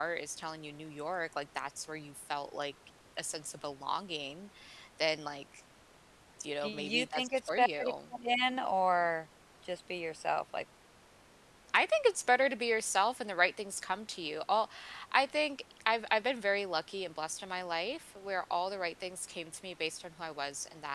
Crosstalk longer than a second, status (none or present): present